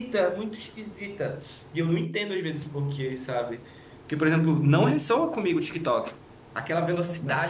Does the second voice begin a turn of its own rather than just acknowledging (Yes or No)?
No